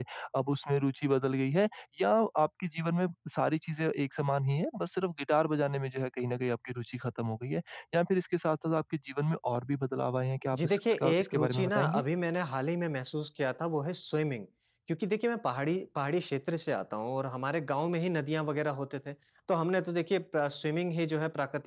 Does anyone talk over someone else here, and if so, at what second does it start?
10.5 s

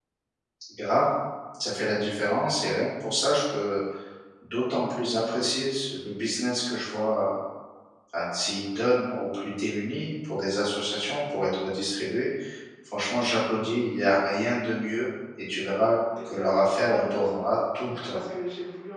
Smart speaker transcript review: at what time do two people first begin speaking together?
16.2 s

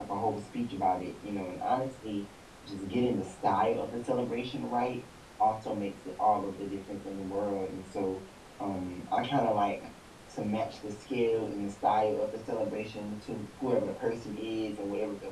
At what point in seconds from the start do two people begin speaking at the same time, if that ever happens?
none

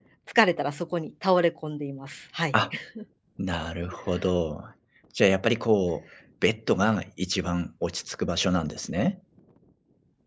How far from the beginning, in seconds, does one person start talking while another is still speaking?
none

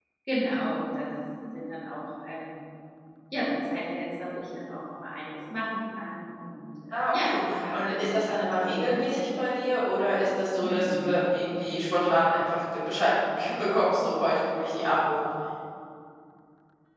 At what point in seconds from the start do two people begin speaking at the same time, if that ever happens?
6.9 s

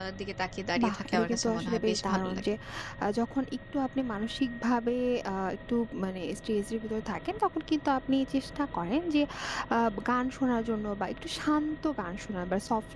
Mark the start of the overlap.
0.8 s

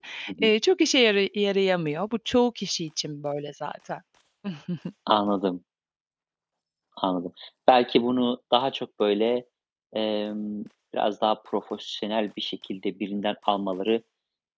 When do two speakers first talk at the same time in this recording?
none

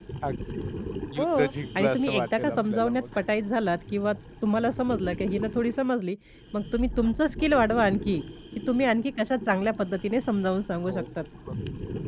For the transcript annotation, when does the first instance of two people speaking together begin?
1.2 s

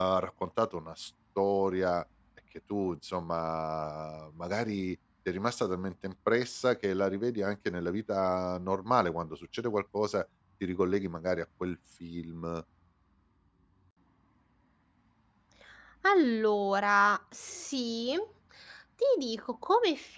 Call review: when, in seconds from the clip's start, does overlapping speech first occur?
none

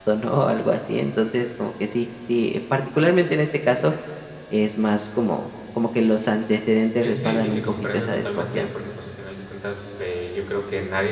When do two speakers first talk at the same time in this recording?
7.0 s

